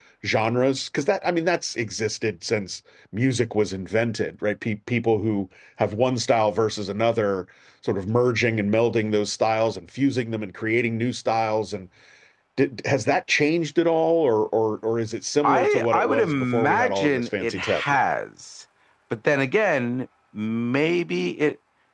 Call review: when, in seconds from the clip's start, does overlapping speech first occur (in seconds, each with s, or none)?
15.4 s